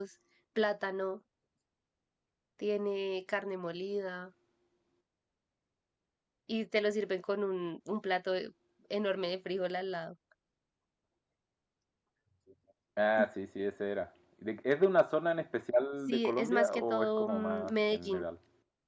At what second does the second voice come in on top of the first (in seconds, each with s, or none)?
16.1 s